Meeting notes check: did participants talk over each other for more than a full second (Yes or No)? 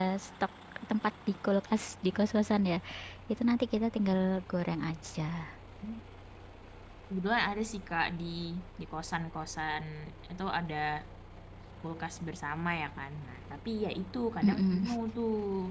No